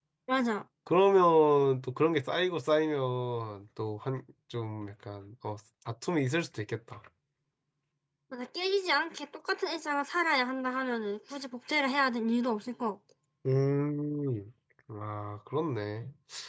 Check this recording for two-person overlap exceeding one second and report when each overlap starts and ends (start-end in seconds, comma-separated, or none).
none